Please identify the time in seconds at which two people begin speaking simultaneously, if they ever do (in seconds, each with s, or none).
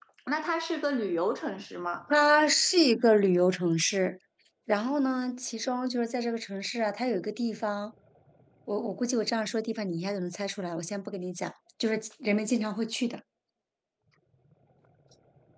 none